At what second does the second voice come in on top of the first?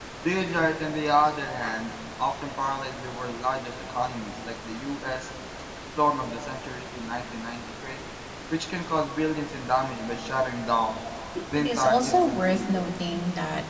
11.6 s

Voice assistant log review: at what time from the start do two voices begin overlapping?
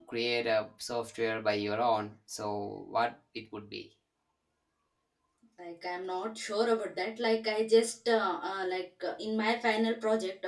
none

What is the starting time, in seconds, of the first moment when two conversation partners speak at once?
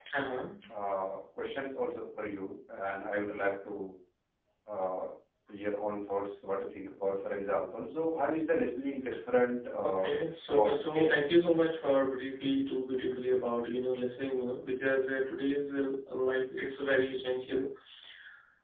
9.8 s

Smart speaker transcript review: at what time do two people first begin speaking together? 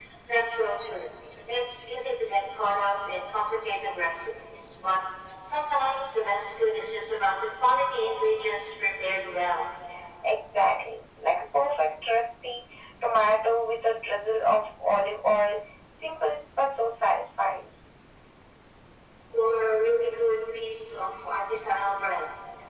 none

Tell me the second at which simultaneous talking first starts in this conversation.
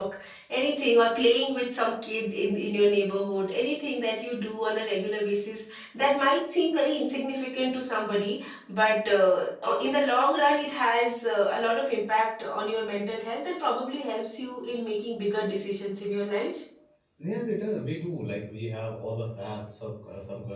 none

